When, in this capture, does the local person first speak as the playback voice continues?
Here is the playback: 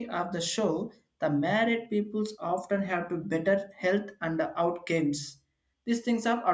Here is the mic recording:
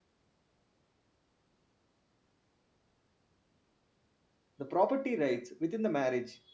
4.6 s

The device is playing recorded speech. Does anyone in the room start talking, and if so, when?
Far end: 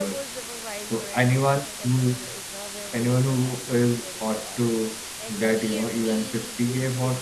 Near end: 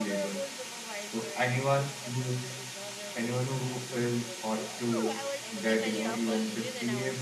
4.5 s

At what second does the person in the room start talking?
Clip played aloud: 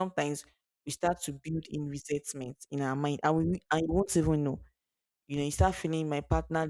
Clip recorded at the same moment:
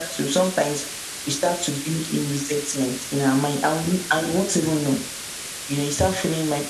none

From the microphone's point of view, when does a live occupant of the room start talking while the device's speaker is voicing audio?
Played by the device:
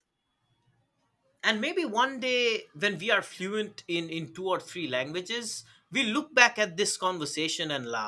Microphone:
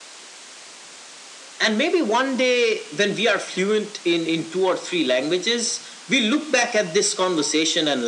none

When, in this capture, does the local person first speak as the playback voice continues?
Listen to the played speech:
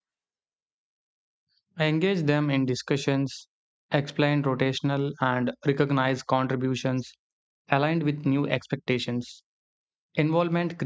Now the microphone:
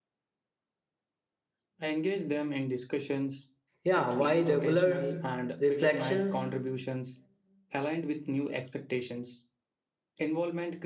3.8 s

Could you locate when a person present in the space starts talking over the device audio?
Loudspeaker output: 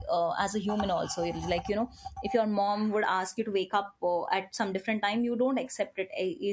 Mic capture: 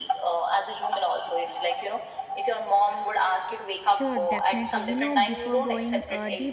3.8 s

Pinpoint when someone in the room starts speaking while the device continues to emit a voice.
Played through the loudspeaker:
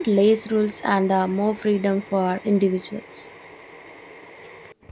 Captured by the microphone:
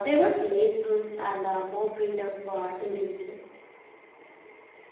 none

